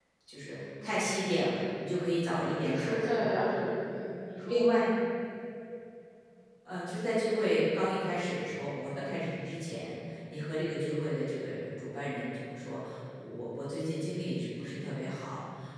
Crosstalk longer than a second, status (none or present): none